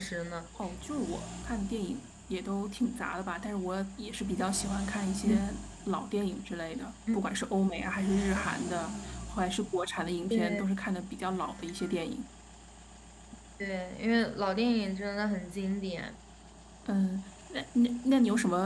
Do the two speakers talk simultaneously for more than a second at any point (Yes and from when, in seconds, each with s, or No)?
No